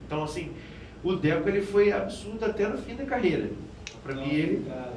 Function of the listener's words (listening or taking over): taking over